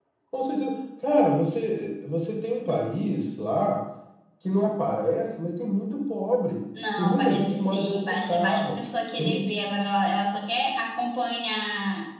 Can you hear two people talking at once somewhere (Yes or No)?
Yes